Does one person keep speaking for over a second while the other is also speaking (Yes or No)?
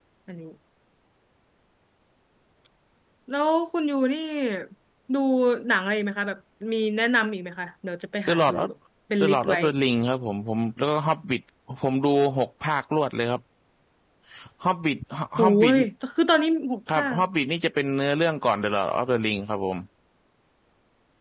No